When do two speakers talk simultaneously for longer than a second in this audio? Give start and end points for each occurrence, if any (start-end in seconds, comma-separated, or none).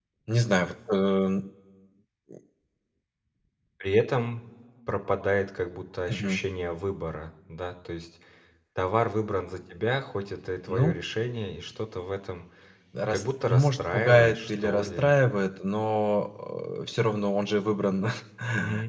13.1-15.1